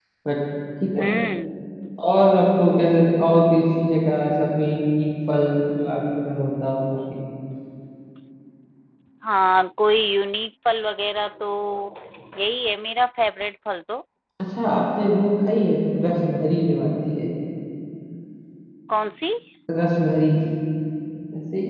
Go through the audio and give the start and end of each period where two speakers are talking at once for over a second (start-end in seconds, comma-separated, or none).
none